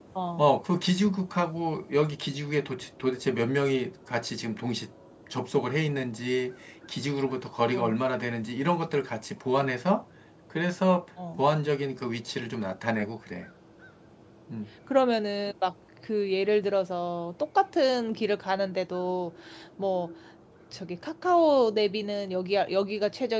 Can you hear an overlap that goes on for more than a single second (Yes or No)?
No